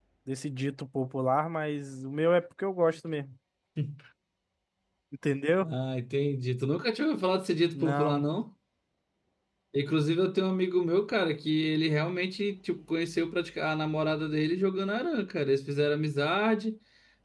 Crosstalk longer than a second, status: none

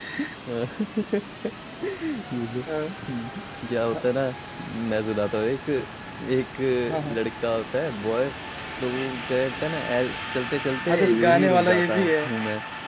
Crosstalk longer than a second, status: present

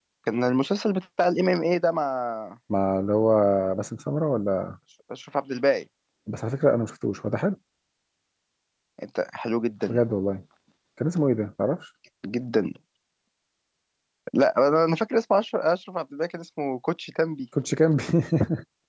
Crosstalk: none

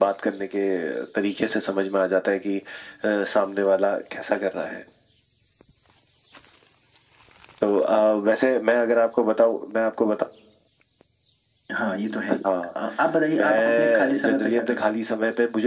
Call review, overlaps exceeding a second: present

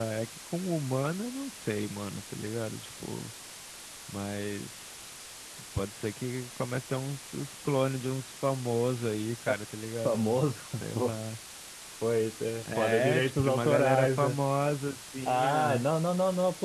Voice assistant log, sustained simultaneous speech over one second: present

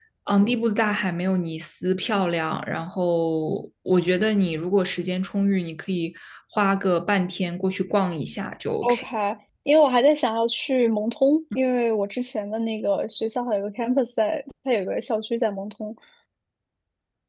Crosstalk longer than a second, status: none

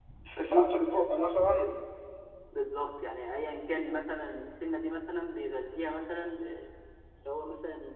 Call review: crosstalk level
present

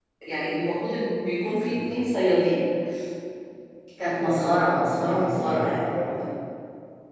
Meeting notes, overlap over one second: present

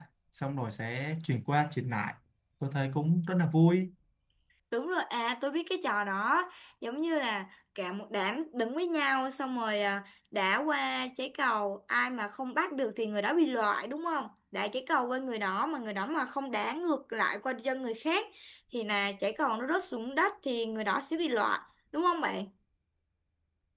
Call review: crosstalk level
none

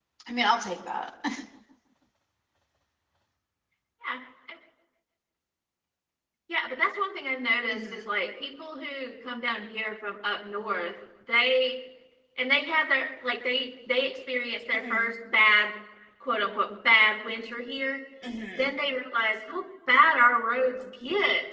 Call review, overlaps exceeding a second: none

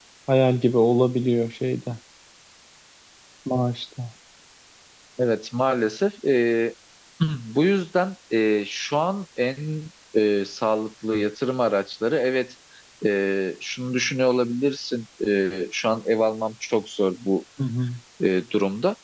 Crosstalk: none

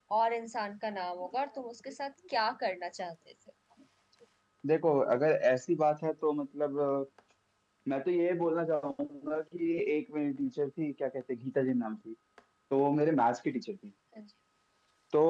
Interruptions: none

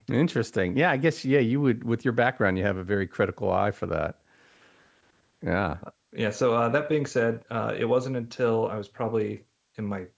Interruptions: none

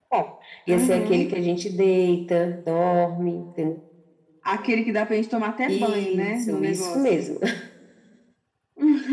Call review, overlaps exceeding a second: present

